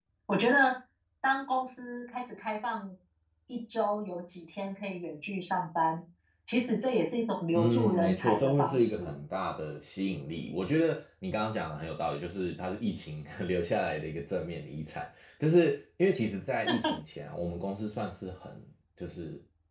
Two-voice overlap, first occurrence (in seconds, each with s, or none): 7.5 s